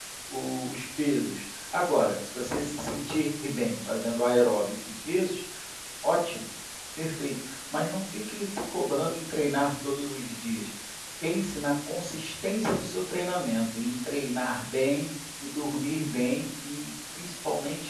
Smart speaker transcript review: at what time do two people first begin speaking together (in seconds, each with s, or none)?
none